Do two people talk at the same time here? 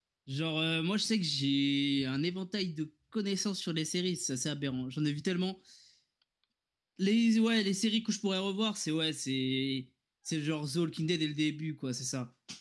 No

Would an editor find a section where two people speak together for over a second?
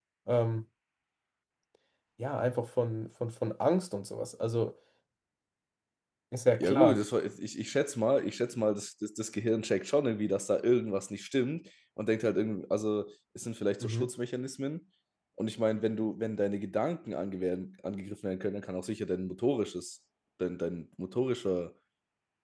No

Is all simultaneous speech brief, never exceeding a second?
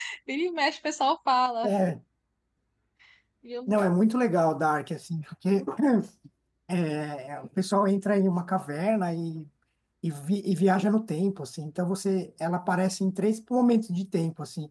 Yes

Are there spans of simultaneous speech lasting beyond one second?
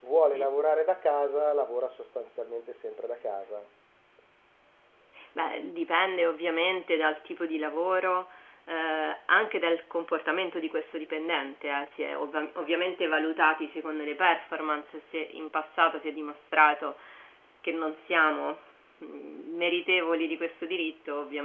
No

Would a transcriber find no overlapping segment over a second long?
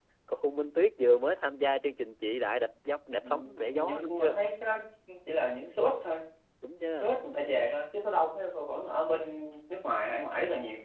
No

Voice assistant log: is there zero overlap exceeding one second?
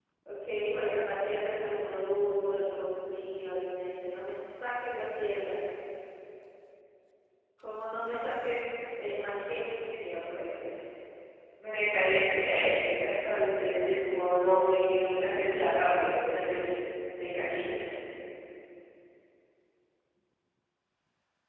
Yes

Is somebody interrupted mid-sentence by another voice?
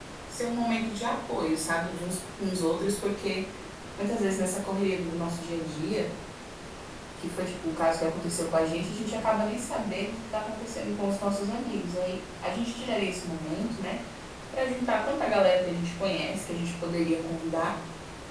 No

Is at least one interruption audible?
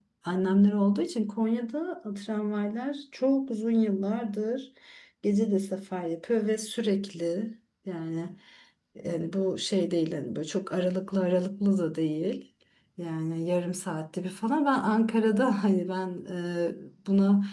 No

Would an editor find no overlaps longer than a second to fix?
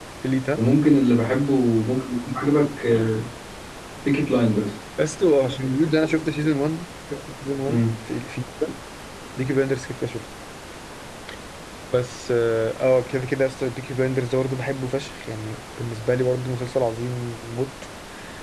Yes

